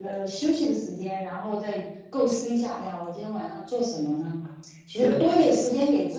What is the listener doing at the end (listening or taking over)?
listening